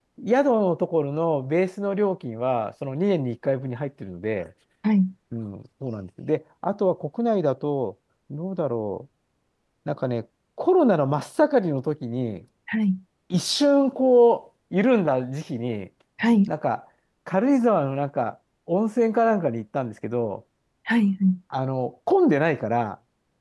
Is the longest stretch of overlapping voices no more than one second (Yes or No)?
Yes